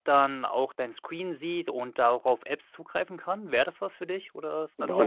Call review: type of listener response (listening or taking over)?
taking over